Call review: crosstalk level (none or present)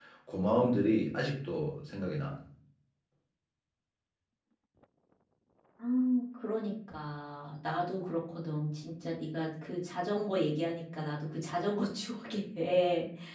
none